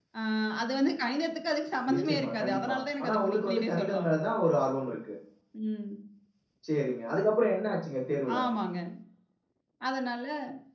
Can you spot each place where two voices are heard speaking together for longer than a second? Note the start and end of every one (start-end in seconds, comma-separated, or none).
1.9-4.1